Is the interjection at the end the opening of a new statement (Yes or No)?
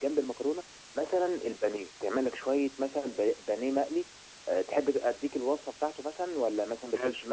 No